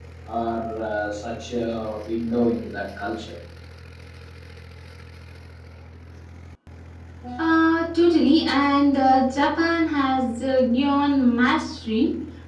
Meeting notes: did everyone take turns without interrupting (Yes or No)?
Yes